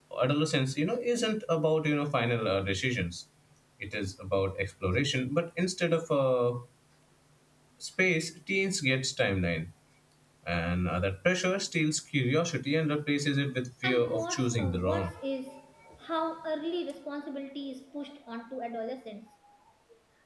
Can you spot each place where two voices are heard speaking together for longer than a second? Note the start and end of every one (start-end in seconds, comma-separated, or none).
13.8-15.1